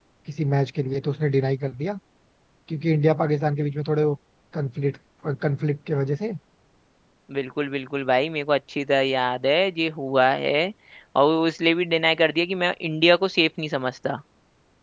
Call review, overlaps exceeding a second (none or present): none